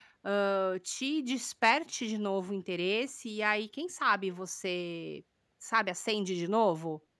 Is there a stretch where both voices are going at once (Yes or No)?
No